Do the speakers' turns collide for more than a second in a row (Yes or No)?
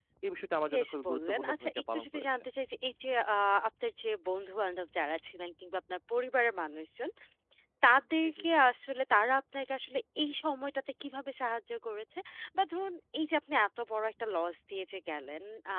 Yes